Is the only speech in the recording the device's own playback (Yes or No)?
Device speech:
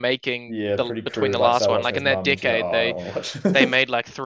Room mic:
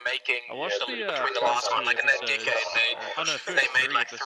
No